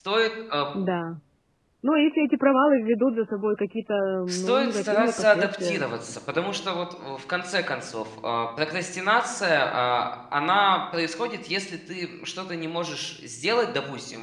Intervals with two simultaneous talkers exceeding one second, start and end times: 4.3-5.8

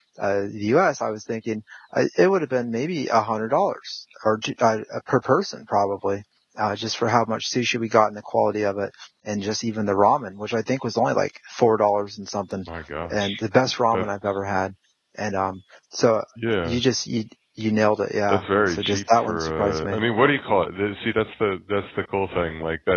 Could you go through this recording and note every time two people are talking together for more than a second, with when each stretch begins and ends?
18.3-20.0

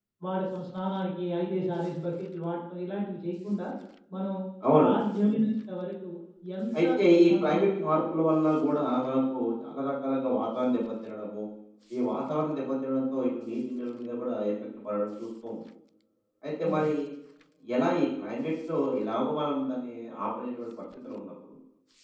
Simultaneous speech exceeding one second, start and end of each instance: none

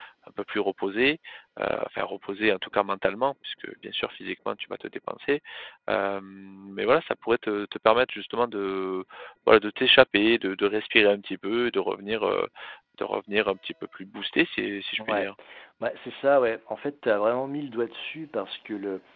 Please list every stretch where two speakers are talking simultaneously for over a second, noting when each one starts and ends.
none

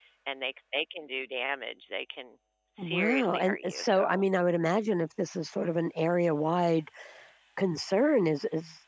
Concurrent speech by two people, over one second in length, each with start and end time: 2.8-4.2

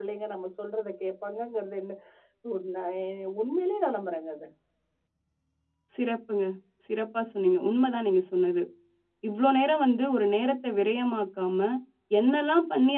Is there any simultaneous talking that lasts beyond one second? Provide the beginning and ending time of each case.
none

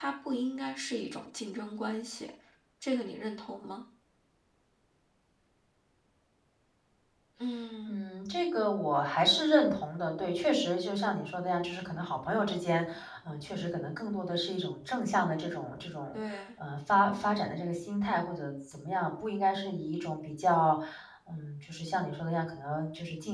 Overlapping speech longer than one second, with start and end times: none

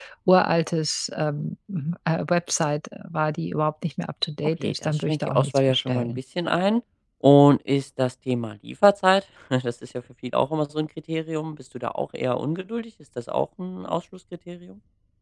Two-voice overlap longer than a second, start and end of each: 4.6-6.2

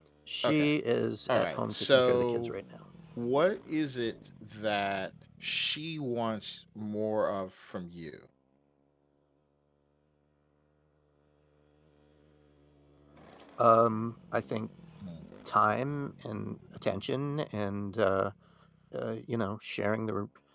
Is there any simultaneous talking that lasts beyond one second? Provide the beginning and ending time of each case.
1.3-2.5

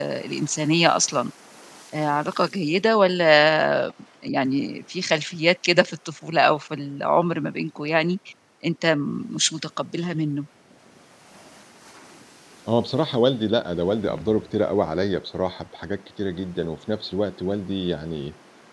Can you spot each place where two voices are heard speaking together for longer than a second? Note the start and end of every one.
none

